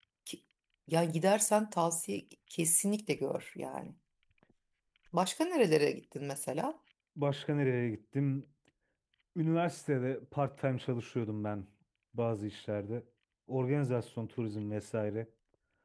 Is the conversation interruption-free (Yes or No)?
Yes